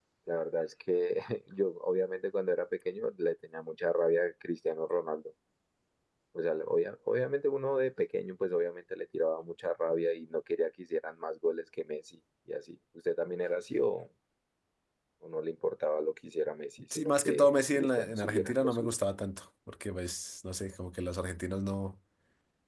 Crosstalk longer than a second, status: present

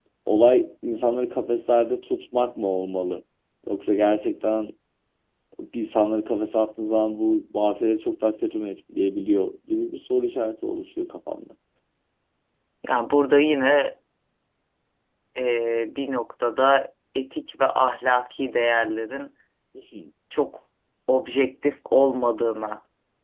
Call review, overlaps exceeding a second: none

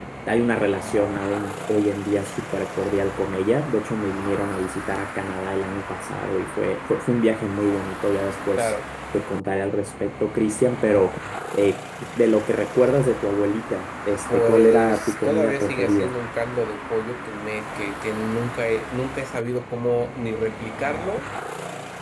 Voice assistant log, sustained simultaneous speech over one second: present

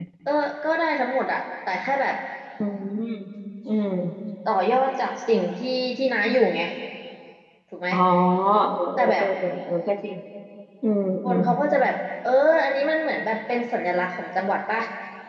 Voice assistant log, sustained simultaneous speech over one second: none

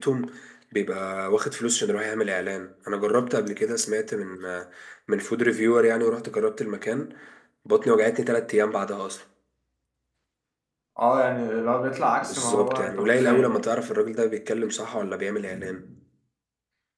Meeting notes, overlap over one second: present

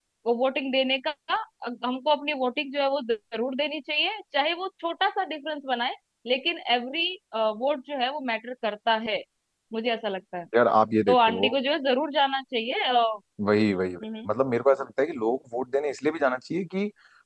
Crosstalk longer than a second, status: none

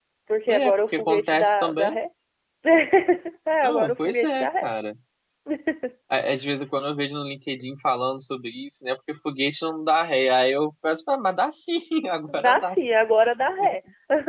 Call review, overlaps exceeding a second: present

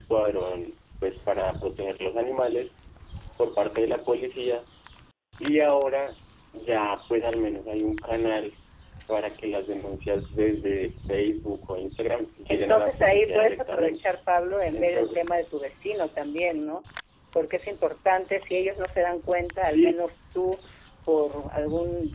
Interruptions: present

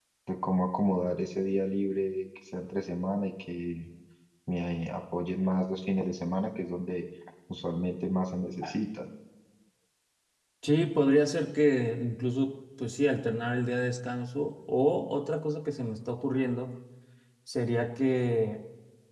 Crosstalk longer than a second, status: none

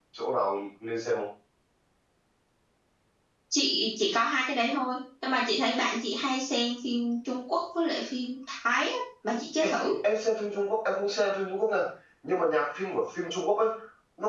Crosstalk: none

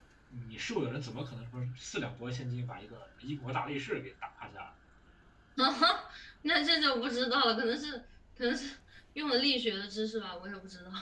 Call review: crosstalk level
none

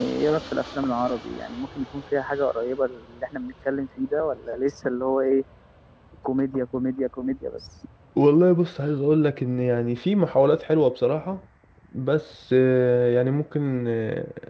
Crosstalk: none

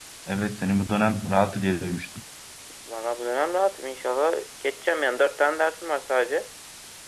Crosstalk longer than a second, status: none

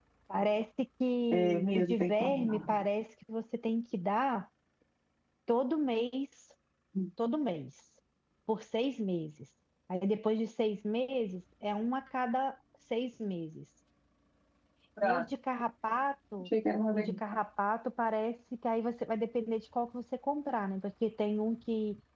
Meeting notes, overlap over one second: present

